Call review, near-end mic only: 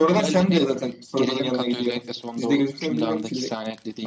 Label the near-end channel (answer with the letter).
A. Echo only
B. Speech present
A